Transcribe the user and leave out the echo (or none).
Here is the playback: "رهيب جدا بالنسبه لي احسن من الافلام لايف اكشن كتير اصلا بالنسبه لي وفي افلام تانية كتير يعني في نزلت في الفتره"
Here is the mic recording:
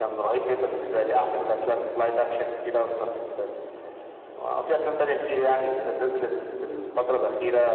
none